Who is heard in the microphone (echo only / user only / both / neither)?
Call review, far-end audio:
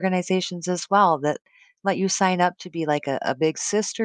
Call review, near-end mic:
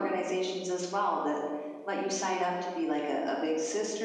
echo only